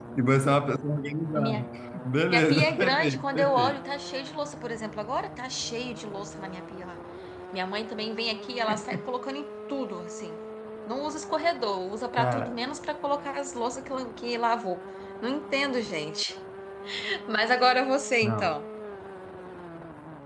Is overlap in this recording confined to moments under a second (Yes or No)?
No